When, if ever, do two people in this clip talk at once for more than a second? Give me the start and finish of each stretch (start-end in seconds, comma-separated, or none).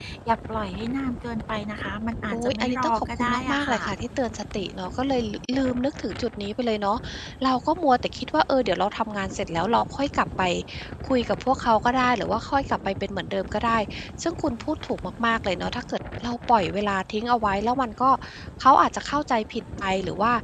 2.3-3.8